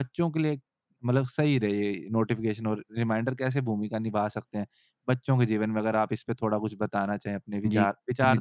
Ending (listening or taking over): taking over